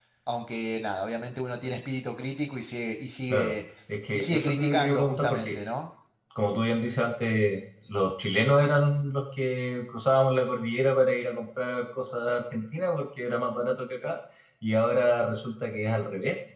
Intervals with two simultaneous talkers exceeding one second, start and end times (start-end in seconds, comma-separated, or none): 4.1-5.6